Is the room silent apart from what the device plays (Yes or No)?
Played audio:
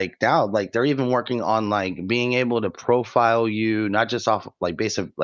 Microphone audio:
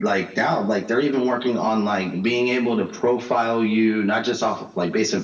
Yes